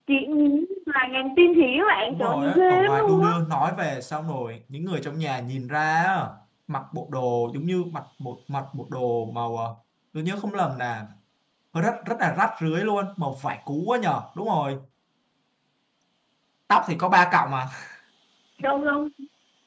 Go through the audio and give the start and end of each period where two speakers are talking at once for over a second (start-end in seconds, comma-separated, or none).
2.1-3.3